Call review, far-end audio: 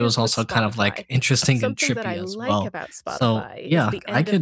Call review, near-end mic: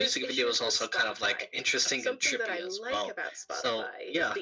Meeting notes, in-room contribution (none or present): none